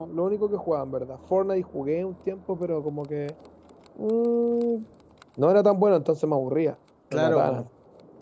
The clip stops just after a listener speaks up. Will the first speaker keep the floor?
No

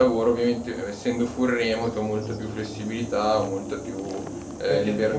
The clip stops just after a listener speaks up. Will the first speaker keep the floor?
No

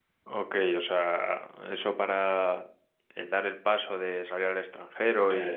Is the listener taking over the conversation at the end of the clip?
No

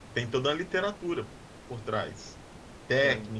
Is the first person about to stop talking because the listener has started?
No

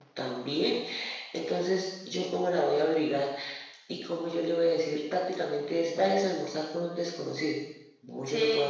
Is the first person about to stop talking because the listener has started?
Yes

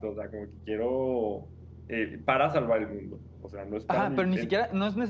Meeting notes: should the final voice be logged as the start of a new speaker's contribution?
Yes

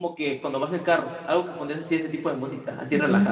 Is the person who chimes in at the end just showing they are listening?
No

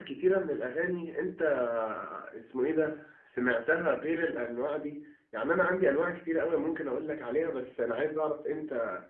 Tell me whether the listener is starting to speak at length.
No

